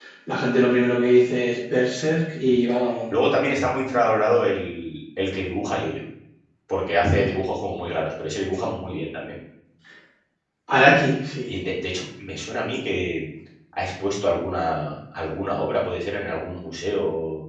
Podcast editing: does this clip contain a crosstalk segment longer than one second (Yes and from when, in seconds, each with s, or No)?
No